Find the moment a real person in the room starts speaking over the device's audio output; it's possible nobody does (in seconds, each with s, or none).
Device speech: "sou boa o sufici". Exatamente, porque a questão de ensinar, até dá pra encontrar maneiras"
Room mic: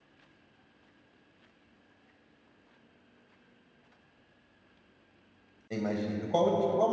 5.7 s